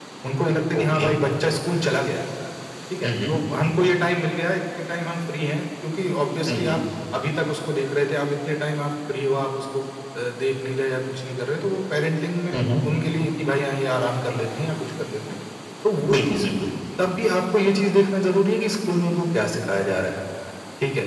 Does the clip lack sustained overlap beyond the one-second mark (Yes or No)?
Yes